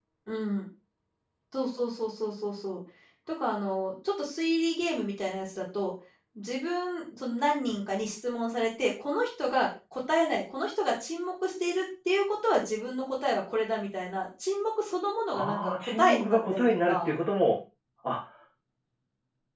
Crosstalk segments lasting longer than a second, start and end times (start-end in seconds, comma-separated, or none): 15.3-17.1